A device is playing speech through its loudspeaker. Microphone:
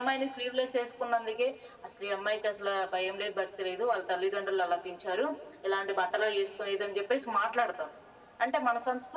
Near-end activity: none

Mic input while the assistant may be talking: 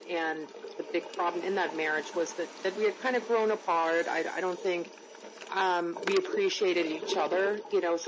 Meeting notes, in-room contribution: none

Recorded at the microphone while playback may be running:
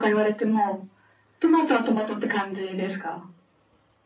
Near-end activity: none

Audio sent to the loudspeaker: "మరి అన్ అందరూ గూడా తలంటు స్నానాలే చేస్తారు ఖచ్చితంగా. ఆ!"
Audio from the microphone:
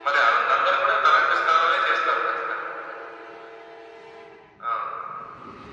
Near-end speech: none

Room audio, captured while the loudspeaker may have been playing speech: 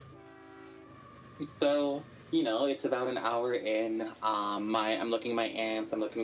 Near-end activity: none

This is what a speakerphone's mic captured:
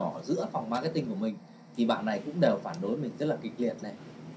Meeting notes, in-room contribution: none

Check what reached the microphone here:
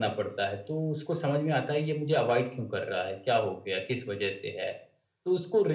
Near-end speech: none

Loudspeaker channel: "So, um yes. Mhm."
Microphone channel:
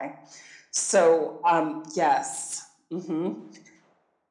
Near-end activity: none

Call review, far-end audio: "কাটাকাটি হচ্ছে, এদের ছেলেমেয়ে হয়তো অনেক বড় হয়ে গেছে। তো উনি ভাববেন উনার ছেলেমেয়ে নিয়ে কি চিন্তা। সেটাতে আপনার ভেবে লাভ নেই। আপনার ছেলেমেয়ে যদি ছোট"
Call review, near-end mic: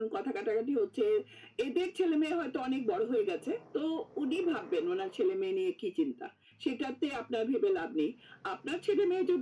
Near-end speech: none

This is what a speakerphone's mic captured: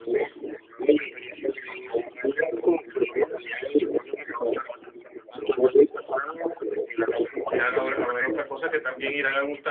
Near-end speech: present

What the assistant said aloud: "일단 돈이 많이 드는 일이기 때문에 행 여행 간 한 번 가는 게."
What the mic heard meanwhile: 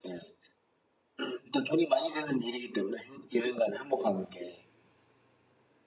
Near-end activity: none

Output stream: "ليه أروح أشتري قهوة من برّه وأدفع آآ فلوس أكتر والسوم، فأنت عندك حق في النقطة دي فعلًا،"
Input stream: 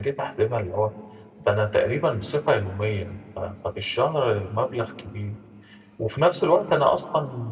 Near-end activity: present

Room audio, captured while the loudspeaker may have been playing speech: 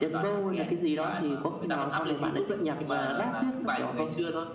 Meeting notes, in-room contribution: none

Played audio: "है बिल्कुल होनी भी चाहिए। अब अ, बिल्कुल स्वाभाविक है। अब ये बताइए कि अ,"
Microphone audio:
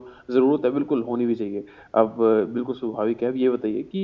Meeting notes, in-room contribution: none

